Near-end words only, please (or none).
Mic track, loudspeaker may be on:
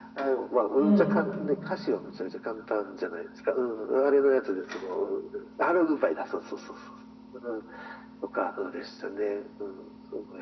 うん、